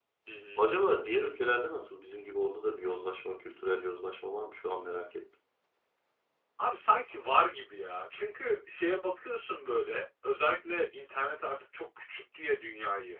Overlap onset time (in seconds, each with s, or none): none